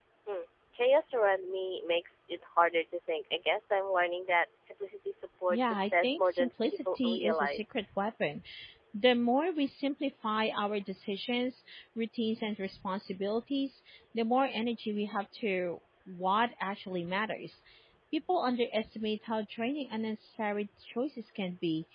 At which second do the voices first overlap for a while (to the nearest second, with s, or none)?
6 s